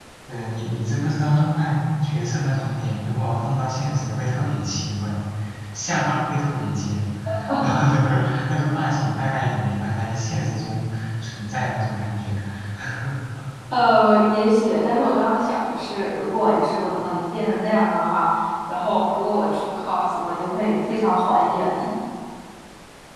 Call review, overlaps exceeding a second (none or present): none